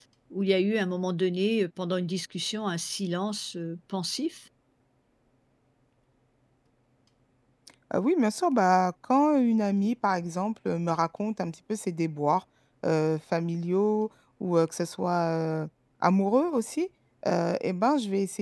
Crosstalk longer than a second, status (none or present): none